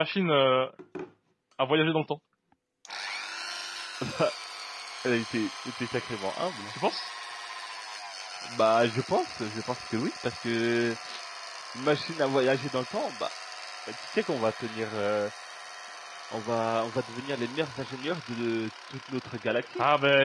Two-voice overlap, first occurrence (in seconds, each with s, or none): none